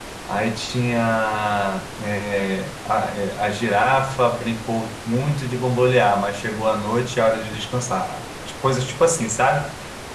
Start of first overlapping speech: none

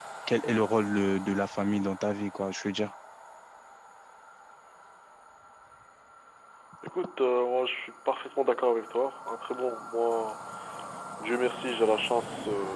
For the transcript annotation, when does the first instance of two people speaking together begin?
none

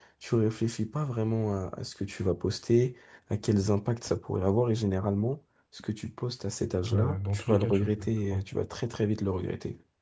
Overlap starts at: 7 s

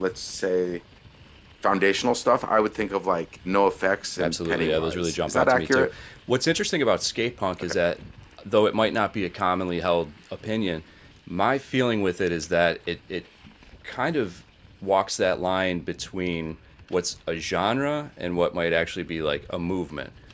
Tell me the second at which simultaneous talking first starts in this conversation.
4 s

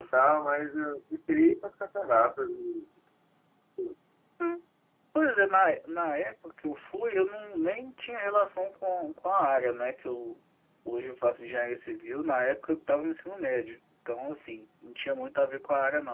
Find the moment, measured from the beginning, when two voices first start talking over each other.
none

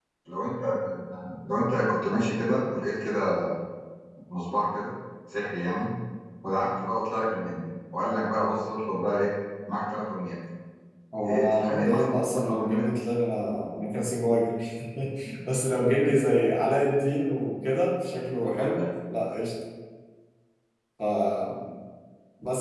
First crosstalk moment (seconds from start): 11 s

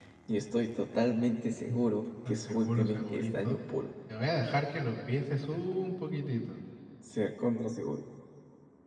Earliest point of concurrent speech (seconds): 2 s

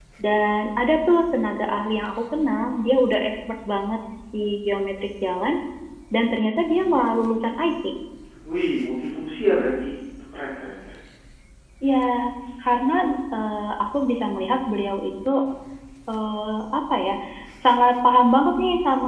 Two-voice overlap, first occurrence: none

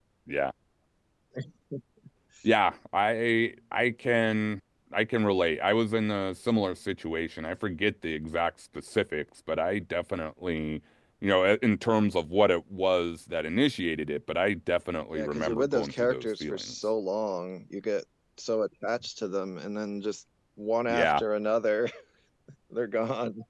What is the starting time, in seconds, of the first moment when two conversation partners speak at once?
15 s

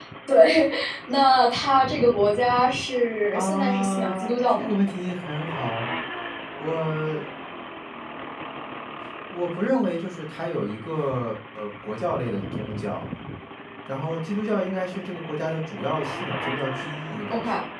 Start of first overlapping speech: 3 s

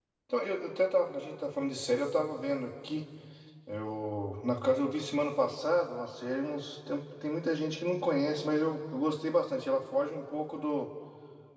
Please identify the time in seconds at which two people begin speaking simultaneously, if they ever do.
none

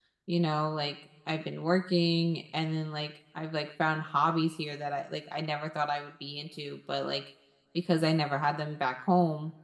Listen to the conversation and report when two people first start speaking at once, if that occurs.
none

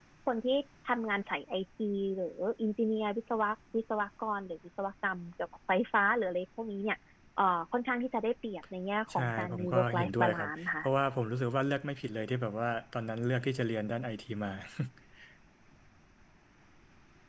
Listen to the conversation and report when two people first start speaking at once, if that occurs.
9 s

